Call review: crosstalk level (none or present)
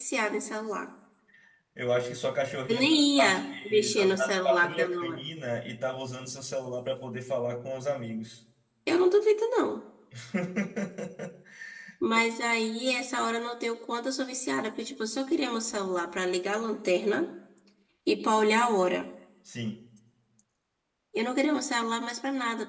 present